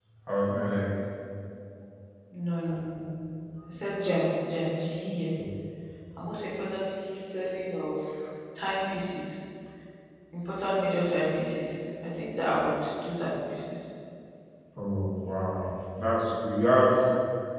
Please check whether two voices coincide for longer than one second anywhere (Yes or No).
No